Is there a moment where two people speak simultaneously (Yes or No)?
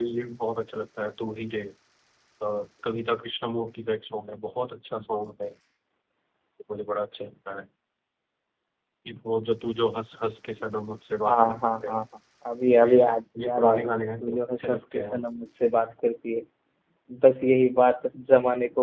Yes